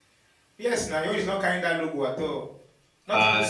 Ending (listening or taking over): taking over